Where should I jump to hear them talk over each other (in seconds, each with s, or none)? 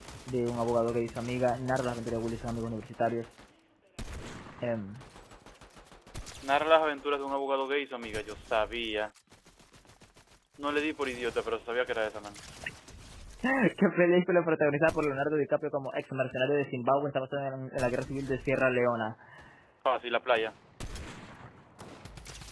none